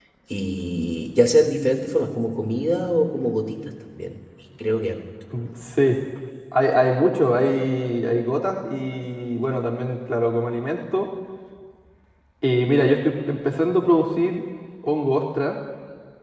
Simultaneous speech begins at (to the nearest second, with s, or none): none